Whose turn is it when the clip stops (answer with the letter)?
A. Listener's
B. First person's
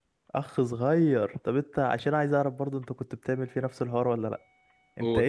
B